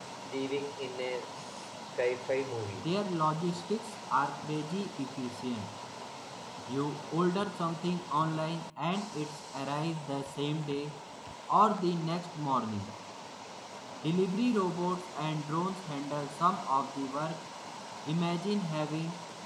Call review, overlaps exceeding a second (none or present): none